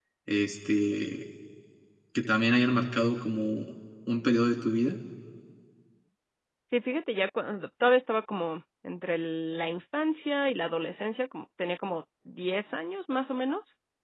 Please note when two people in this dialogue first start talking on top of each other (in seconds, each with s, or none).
none